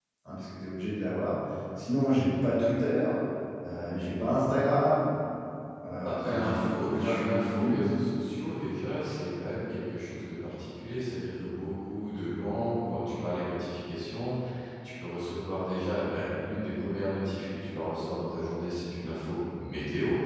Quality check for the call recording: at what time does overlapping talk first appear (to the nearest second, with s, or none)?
6 s